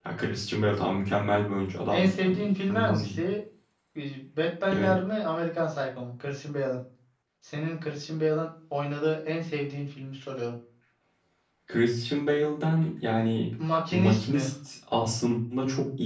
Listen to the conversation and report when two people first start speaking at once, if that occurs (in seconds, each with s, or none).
1.9 s